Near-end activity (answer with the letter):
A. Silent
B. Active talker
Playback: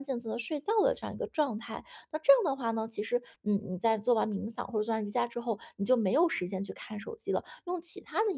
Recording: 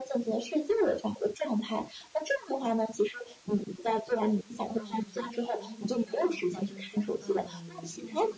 B